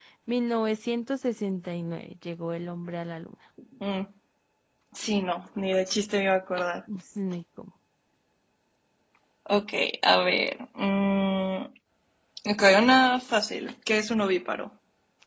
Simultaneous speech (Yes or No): No